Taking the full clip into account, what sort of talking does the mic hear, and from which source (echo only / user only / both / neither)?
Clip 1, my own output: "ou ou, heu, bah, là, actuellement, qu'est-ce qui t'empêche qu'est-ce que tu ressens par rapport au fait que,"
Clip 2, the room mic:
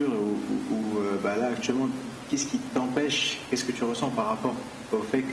echo only